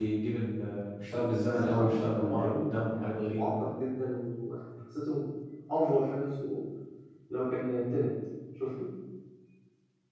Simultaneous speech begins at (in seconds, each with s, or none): 1.5 s